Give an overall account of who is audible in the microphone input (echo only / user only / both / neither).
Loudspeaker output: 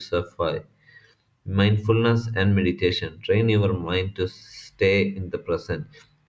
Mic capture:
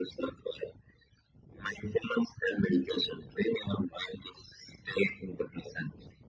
echo only